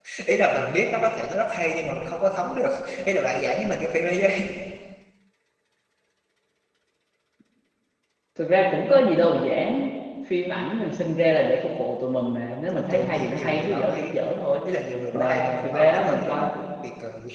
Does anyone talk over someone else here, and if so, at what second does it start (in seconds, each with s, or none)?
12.7 s